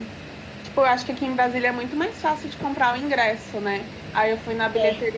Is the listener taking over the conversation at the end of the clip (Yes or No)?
No